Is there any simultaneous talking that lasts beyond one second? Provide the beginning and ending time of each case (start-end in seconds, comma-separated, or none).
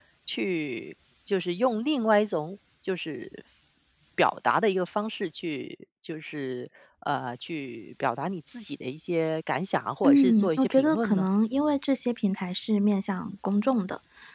10.0-11.3